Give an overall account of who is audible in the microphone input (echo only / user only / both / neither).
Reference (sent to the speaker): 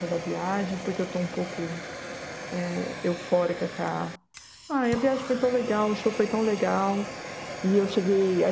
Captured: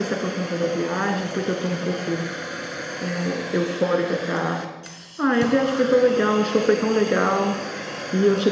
echo only